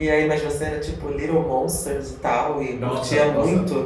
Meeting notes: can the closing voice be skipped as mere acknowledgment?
No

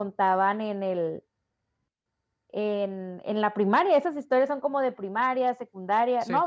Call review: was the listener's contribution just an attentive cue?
Yes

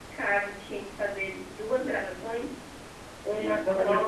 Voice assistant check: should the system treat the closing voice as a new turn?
Yes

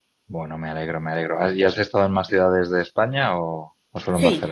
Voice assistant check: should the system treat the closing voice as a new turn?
Yes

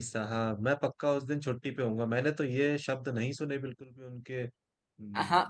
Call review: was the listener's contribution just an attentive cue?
No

